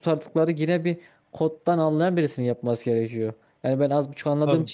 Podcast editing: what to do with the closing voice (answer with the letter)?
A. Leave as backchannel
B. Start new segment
A